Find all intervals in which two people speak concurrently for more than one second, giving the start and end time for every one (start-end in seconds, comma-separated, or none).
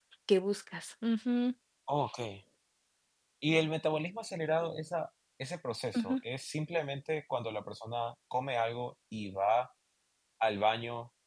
none